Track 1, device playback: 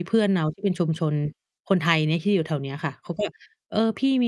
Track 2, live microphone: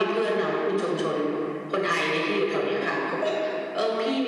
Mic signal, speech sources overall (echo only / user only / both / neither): echo only